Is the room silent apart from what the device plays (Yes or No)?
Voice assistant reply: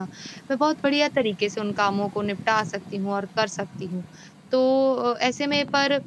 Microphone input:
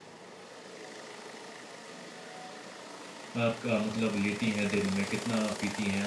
No